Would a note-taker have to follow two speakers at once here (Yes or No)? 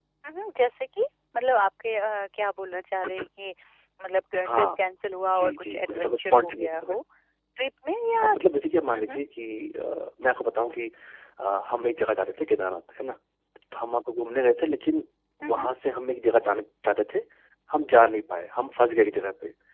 Yes